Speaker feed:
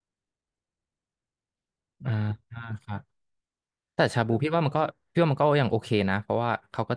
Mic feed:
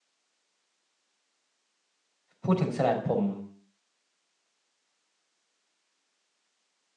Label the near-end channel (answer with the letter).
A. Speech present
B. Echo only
A